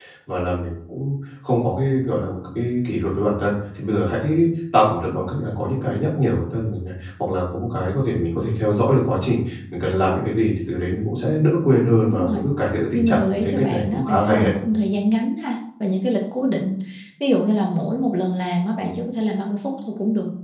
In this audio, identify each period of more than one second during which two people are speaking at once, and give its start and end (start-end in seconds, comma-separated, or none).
12.9-14.5